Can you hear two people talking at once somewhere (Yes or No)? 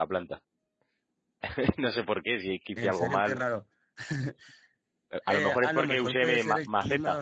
Yes